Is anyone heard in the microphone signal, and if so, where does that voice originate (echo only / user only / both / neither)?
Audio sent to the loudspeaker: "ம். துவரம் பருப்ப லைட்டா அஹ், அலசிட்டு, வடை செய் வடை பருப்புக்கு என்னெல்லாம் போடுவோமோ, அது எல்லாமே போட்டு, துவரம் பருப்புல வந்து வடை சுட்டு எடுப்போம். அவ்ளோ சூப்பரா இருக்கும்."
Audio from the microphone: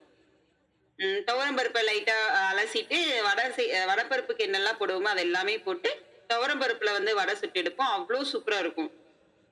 echo only